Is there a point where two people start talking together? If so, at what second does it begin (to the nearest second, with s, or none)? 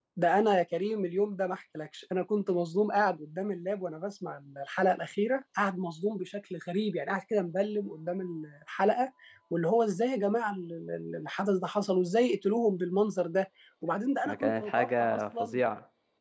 14 s